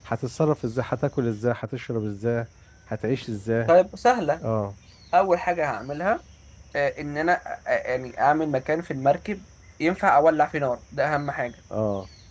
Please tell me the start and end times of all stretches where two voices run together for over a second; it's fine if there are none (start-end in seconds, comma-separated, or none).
none